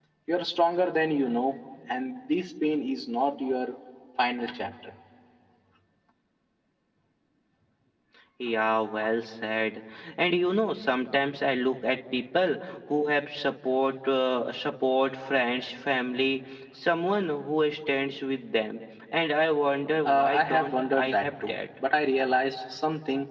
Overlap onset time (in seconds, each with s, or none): 20.1 s